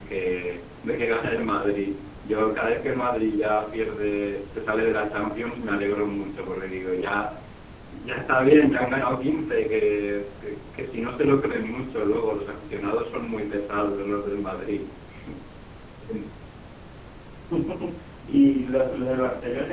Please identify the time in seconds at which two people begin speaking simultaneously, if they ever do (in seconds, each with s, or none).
none